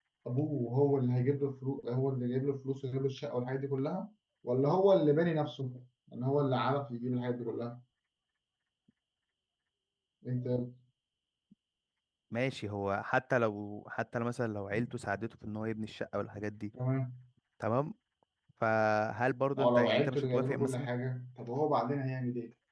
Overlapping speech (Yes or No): Yes